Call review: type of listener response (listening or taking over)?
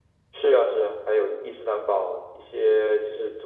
listening